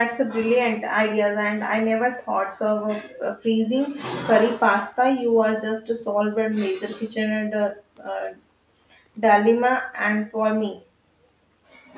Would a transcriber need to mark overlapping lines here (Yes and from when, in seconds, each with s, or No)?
No